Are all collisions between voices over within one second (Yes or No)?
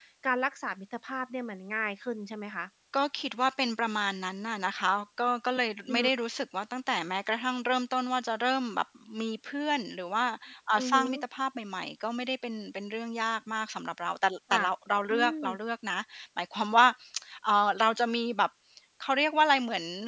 Yes